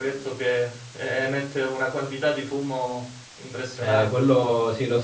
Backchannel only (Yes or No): No